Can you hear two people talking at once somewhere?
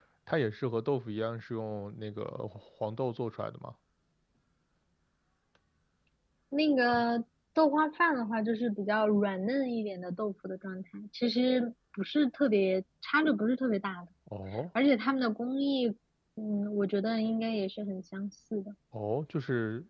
No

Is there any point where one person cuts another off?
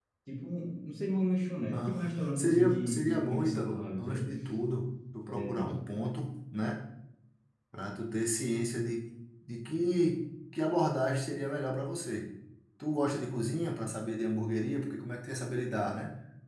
Yes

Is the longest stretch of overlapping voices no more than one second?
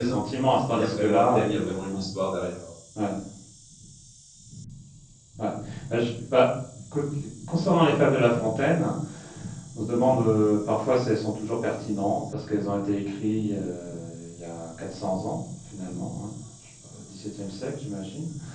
No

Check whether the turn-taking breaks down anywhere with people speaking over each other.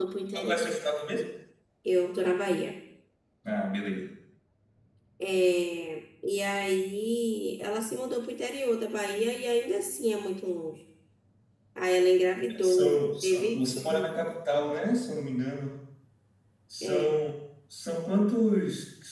Yes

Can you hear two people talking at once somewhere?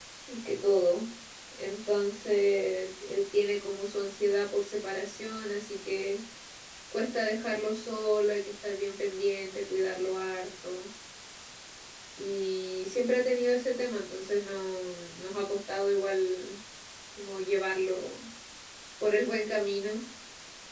No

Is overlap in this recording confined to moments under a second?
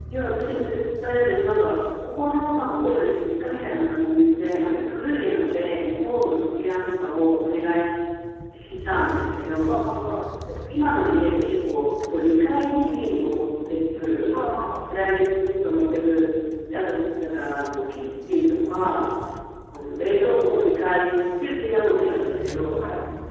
Yes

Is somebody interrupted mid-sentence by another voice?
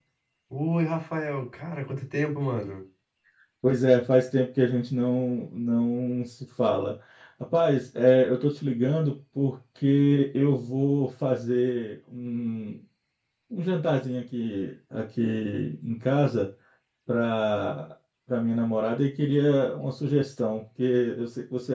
No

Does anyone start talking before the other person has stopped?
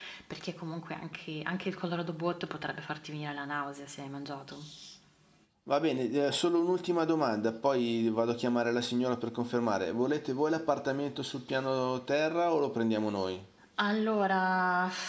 No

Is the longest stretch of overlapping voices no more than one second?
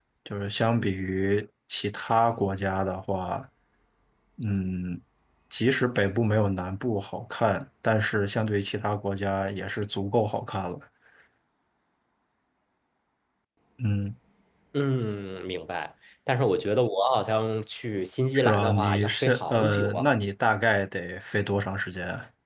No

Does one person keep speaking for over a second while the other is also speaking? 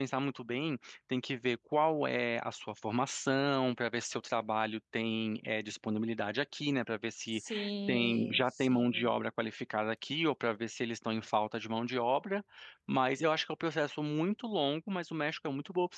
Yes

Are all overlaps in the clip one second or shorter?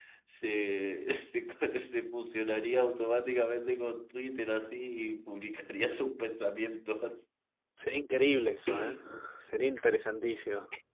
Yes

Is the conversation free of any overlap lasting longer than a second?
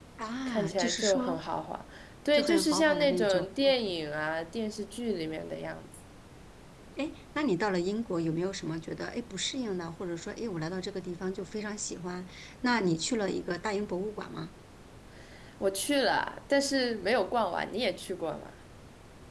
No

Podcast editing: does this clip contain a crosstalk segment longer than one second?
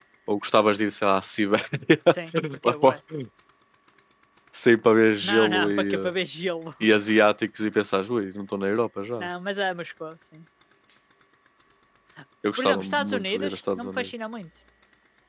Yes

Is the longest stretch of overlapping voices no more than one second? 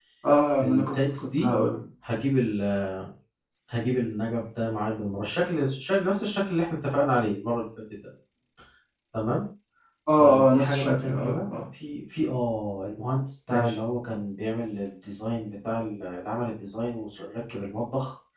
No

